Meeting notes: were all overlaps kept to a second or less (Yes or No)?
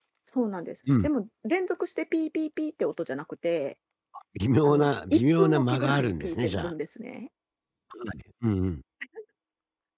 No